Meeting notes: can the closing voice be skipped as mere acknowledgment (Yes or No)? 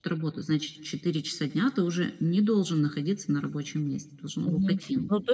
No